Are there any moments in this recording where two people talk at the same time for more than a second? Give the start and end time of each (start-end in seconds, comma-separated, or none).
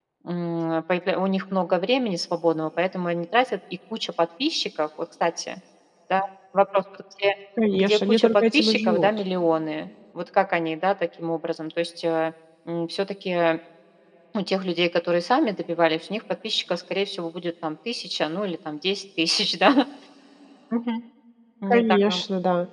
7.7-9.1